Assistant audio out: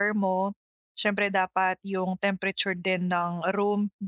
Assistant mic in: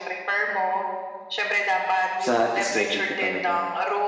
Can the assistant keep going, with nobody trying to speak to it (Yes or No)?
No